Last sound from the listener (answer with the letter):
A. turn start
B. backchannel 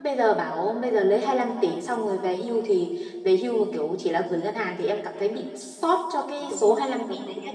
A